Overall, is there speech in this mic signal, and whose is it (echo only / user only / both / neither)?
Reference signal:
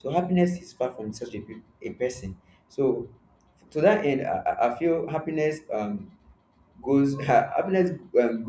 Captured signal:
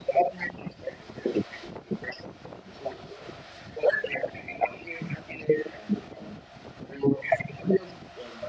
echo only